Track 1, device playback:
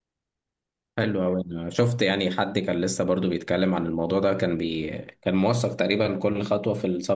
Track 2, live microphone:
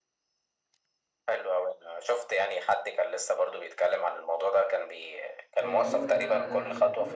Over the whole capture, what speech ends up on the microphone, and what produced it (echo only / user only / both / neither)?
both